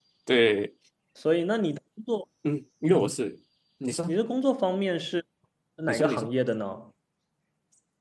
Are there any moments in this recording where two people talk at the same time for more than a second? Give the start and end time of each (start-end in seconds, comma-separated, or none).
none